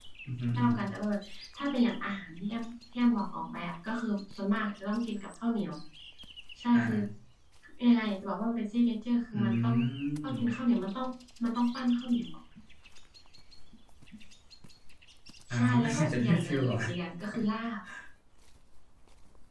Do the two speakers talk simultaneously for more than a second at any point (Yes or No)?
Yes